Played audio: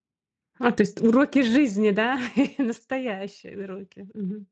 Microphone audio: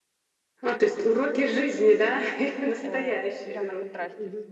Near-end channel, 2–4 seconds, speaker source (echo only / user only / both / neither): both